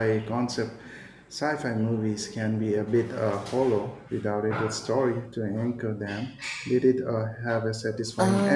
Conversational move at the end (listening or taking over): taking over